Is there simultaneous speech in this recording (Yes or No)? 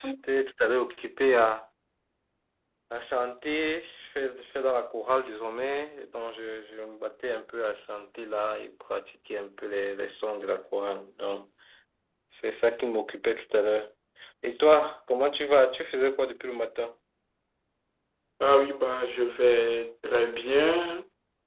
No